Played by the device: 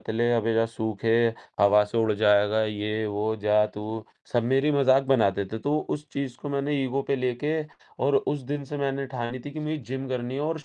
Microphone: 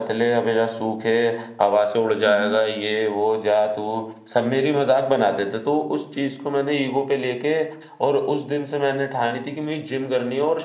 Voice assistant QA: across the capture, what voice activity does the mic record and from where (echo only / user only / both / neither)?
both